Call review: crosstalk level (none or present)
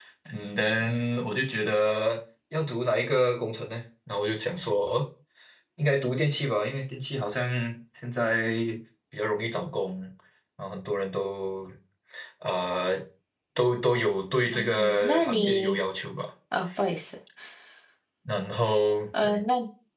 present